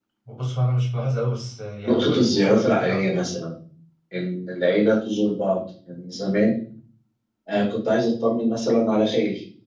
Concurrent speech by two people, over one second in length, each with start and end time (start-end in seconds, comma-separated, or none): 1.9-3.2